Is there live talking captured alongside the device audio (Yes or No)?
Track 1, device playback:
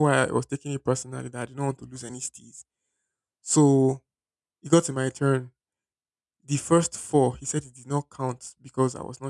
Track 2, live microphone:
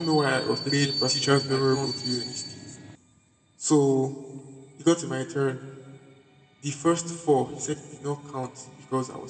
Yes